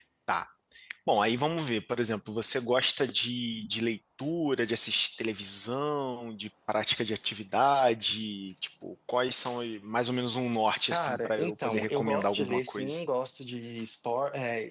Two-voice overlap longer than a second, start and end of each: 10.9-13.0

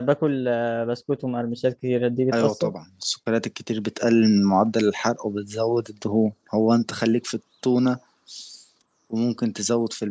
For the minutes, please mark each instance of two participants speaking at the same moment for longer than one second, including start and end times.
none

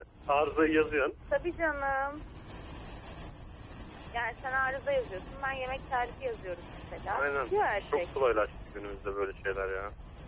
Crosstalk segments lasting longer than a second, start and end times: none

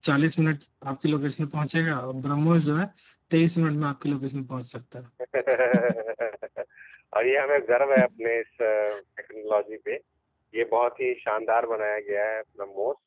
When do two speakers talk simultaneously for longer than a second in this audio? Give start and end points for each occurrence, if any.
none

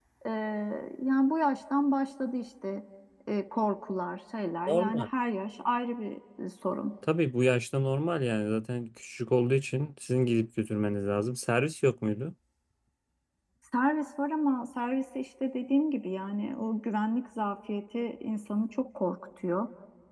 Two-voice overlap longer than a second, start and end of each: none

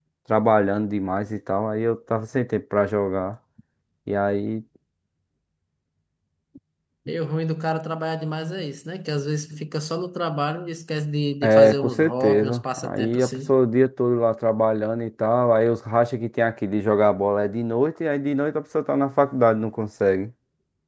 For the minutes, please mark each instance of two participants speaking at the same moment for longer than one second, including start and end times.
11.4-13.5

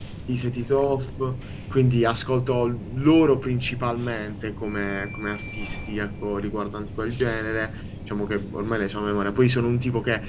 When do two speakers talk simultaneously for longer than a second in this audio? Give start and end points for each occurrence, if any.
none

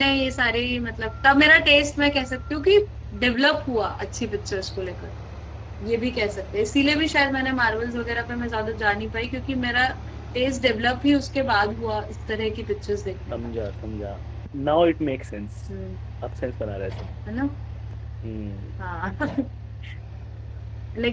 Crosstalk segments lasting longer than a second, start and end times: none

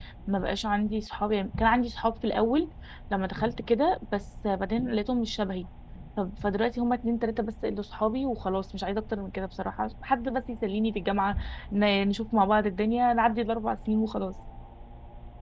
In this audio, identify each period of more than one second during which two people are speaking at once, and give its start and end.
none

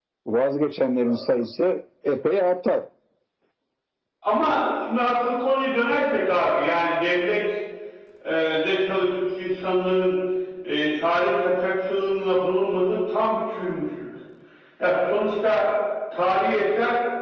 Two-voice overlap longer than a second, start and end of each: none

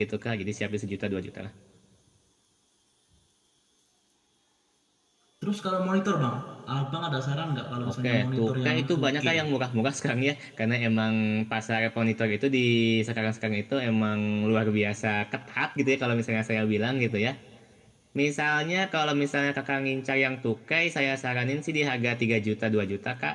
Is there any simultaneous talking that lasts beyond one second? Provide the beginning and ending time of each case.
7.9-9.2

